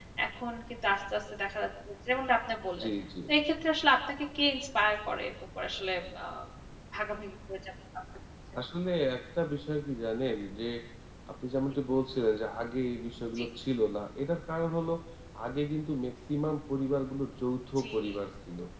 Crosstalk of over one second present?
No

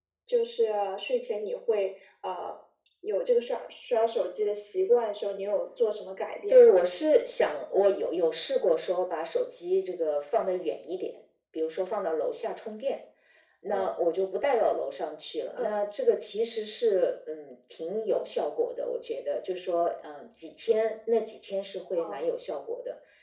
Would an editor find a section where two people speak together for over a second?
No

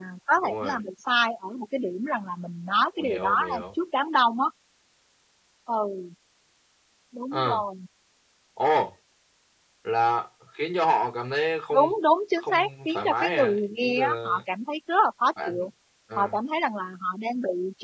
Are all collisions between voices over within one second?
No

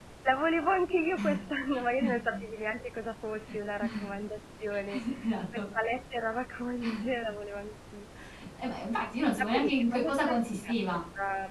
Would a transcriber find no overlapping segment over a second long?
No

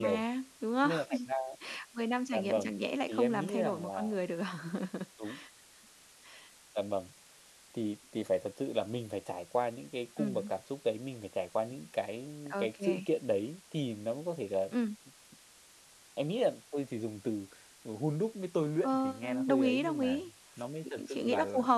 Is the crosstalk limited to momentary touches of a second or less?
No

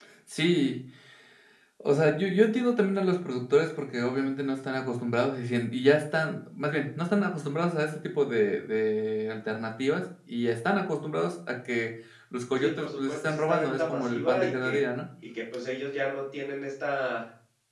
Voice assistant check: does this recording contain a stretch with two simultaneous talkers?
Yes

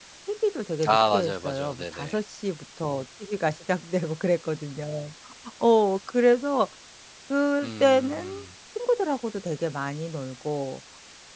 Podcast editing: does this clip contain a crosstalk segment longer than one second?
Yes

